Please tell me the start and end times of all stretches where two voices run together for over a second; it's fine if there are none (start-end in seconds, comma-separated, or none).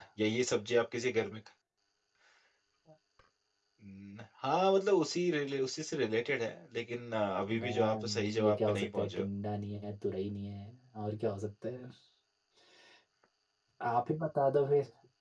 7.6-9.2